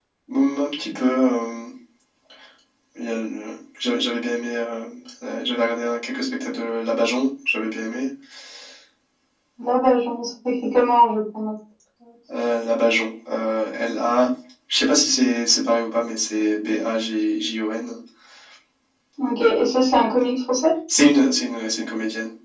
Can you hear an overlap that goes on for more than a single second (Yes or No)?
No